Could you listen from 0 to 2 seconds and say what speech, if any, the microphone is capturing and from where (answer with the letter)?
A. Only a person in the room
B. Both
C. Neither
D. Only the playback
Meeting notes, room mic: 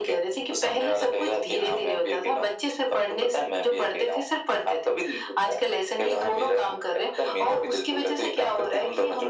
D